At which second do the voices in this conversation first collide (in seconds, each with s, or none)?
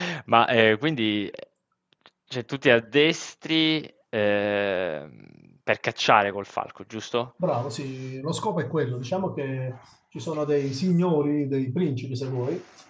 none